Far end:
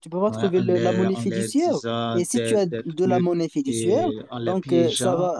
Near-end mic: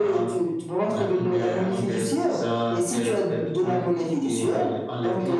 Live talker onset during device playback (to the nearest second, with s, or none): none